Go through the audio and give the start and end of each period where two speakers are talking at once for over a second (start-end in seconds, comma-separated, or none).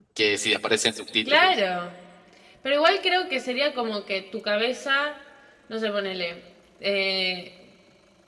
none